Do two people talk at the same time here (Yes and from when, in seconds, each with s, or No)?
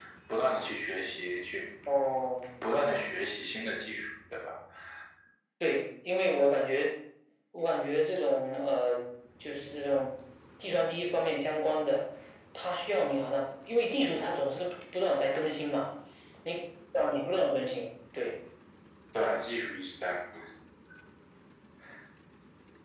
No